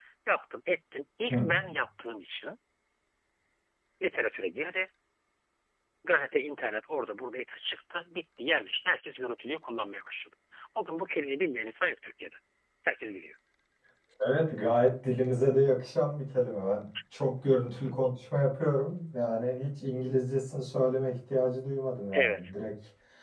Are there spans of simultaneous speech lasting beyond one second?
No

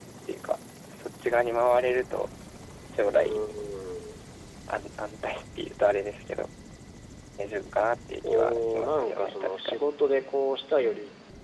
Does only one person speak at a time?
No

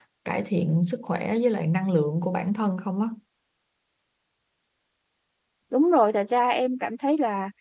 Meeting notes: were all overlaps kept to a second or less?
Yes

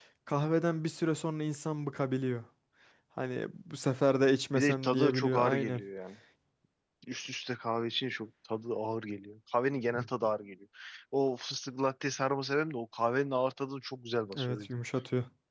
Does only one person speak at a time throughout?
No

